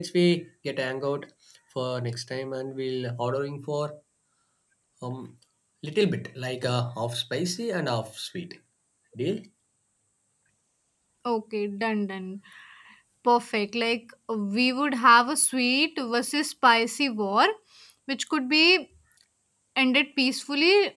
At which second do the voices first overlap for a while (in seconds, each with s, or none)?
none